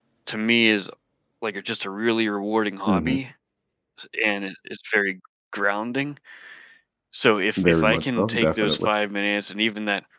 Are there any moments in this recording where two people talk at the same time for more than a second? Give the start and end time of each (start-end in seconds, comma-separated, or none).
7.6-8.9